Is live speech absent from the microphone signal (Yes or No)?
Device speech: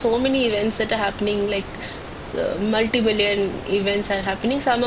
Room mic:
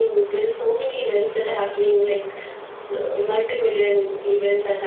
Yes